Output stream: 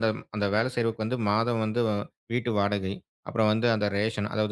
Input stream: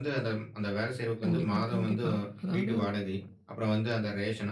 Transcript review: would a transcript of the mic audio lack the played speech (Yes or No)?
No